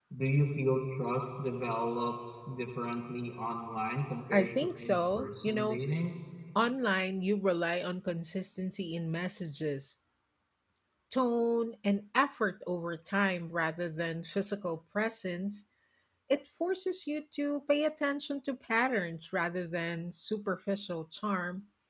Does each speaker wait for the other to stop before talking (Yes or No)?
No